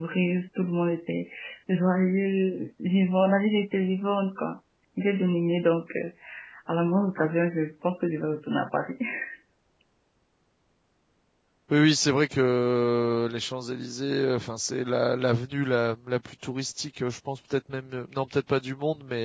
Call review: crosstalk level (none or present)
none